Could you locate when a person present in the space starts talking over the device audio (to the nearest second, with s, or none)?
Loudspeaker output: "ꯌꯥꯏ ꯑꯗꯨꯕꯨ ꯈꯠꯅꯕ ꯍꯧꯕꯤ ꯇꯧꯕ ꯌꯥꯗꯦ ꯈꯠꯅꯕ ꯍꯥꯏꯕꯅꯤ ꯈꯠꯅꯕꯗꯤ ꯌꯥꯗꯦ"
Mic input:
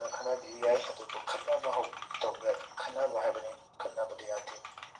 none